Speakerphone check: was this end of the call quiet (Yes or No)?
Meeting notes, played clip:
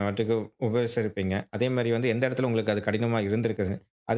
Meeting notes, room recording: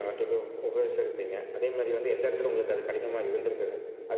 Yes